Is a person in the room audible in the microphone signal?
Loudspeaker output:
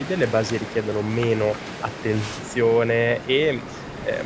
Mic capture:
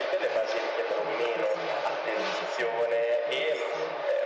Yes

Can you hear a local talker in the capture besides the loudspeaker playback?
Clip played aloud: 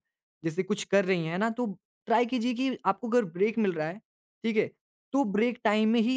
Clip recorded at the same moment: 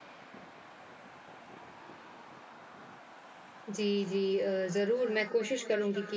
Yes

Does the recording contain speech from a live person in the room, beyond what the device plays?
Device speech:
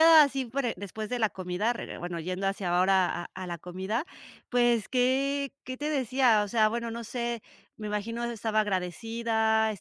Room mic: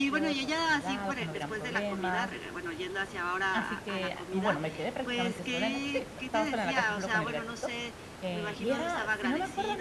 Yes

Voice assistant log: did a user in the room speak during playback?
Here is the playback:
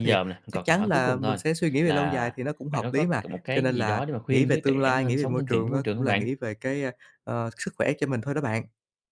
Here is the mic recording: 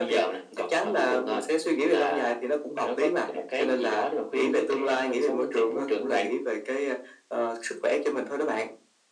No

